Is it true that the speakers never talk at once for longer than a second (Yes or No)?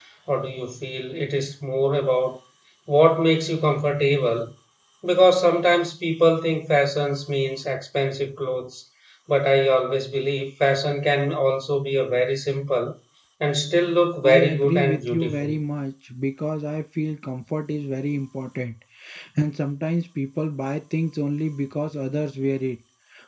No